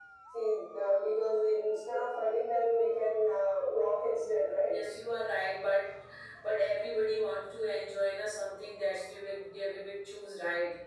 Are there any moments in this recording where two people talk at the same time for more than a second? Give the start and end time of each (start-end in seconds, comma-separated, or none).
none